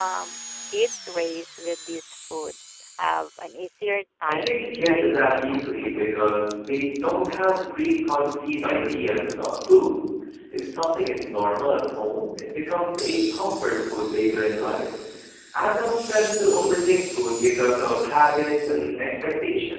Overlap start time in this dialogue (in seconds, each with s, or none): 4.2 s